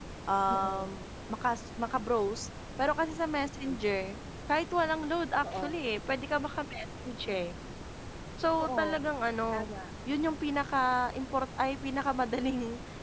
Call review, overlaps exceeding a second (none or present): none